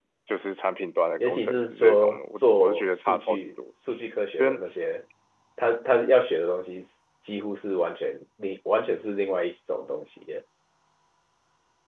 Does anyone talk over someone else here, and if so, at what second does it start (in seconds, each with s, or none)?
1.2 s